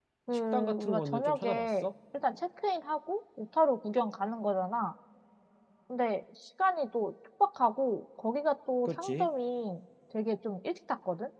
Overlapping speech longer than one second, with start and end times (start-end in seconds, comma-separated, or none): 0.5-1.9